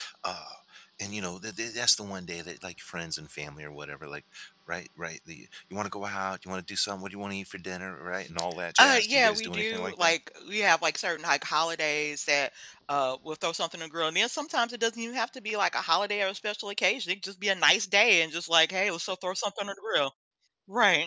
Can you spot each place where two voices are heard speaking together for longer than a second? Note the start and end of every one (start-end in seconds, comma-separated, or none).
8.8-10.2